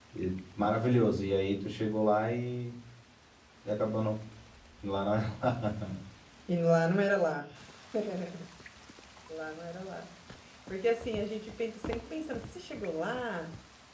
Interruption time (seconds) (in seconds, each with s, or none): none